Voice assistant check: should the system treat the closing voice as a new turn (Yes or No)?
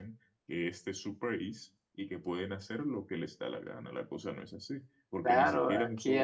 Yes